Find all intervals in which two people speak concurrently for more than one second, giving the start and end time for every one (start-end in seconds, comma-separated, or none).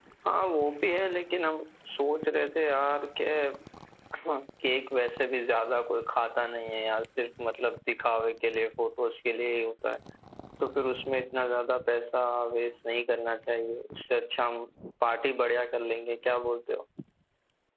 none